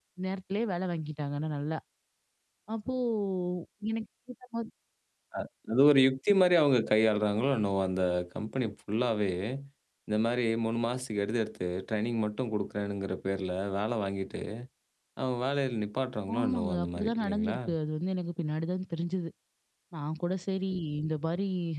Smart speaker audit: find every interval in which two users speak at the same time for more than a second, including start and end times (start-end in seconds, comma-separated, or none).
16.4-17.6